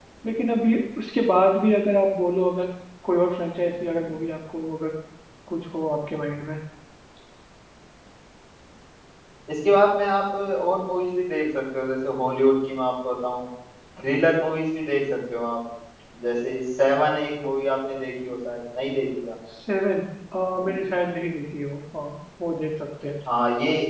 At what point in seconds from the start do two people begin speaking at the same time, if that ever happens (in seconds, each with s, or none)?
none